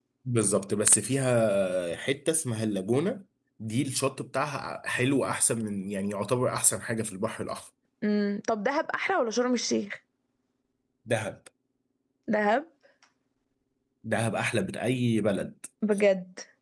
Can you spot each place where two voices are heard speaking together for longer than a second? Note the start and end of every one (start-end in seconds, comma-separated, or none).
none